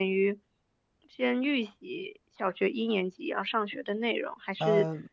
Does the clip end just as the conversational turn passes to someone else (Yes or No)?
No